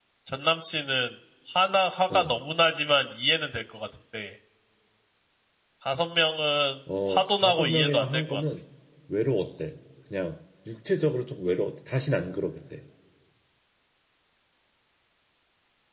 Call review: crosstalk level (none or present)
present